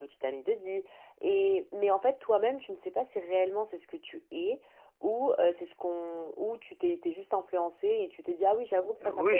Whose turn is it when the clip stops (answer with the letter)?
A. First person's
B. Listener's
B